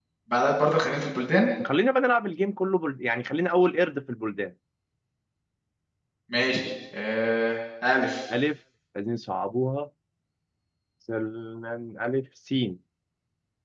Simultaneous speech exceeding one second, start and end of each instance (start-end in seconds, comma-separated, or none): none